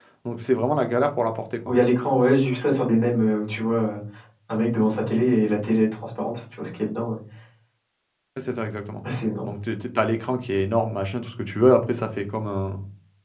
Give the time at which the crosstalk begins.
none

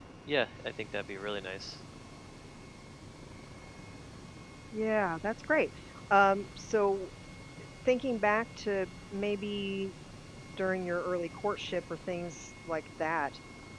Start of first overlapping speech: none

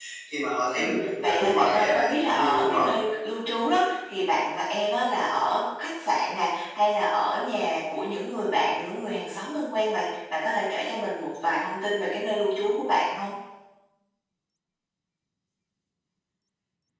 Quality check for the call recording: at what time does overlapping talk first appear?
1 s

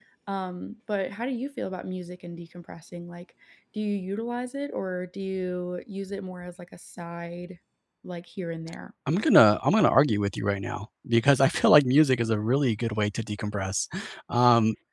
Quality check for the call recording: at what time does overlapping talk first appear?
none

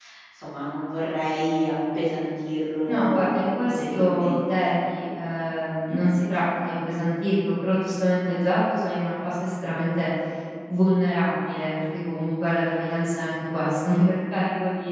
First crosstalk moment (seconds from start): 3 s

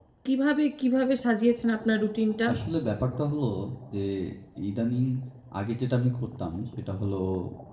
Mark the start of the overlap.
none

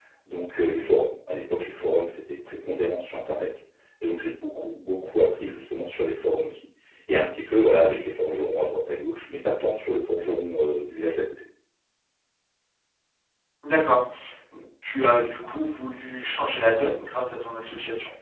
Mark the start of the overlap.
none

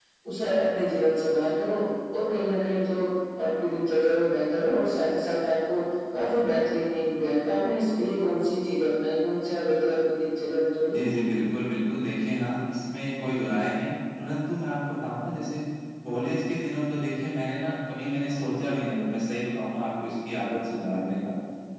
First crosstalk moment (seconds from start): none

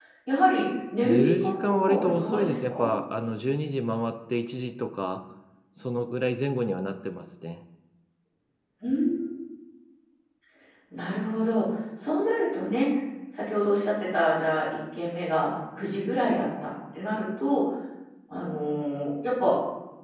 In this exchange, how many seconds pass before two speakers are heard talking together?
1 s

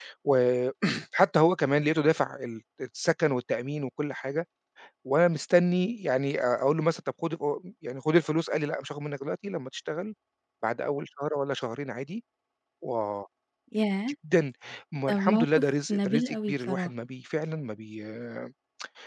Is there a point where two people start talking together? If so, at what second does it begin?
15 s

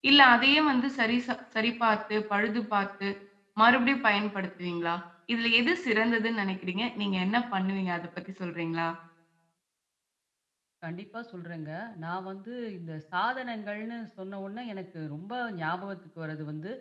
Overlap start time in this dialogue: none

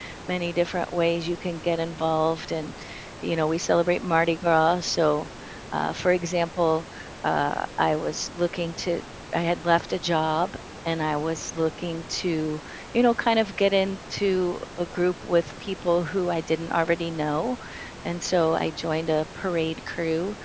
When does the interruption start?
none

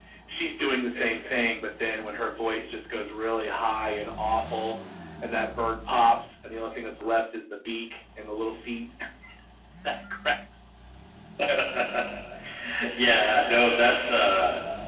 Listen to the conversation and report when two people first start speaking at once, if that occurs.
none

